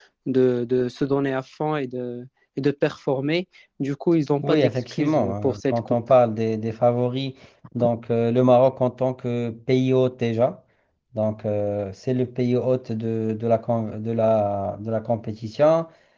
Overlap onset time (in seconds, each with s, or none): 4.4 s